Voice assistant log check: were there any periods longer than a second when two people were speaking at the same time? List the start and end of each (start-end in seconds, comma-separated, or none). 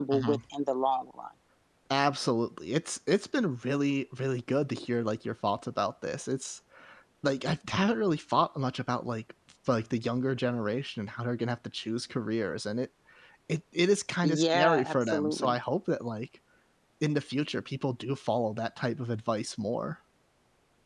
14.2-15.5